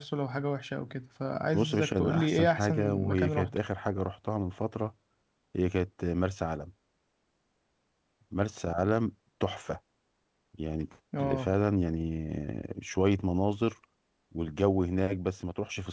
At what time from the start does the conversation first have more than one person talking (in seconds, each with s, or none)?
1.5 s